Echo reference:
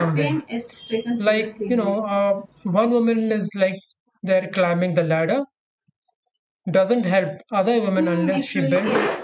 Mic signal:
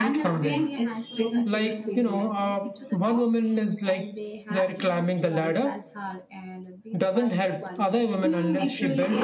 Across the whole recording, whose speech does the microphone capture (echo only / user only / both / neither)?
both